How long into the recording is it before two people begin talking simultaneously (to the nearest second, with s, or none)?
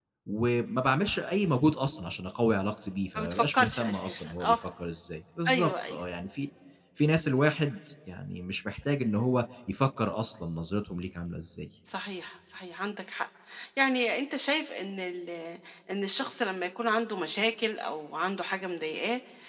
3 s